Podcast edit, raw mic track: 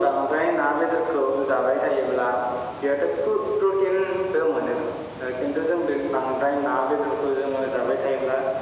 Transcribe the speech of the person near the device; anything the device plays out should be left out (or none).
none